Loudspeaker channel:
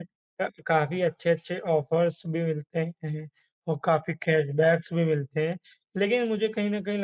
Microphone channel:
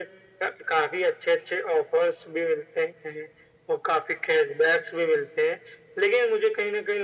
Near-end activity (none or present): none